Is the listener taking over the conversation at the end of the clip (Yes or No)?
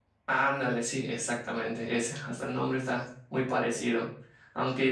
No